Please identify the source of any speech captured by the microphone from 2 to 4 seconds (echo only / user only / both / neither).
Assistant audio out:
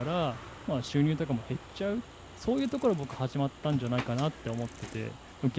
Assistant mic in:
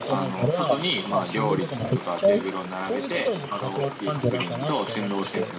both